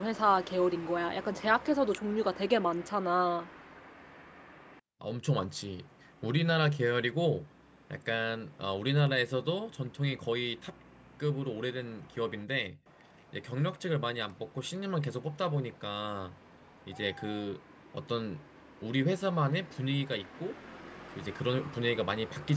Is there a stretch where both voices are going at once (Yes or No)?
No